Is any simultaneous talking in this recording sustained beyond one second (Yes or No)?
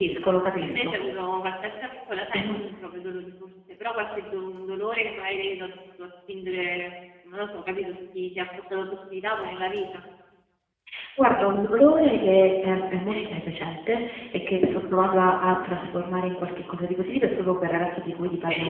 No